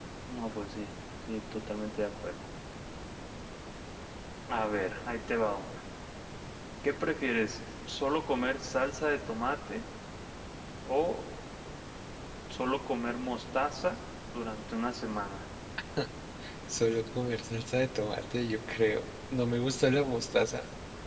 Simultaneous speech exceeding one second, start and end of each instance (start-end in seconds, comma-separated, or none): none